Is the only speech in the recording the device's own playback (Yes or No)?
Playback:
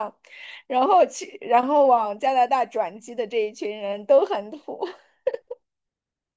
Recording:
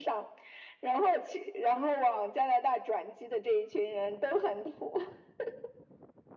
Yes